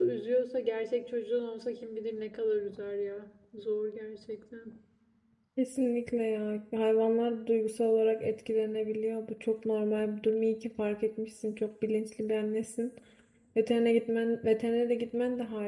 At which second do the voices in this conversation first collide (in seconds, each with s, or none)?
none